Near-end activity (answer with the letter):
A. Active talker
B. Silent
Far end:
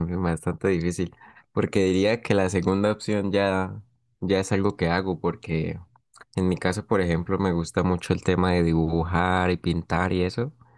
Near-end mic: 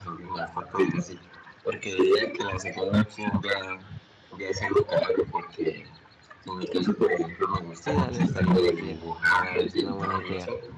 A